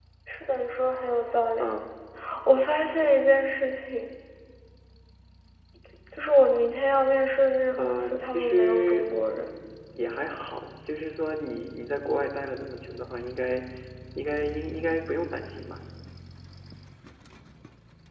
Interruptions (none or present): present